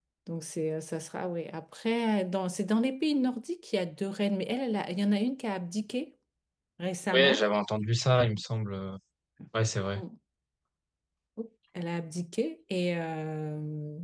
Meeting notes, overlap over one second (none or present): none